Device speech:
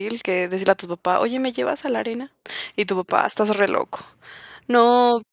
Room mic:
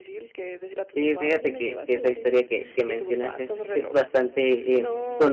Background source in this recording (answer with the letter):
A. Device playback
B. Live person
A